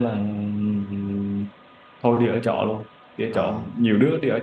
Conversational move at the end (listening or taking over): listening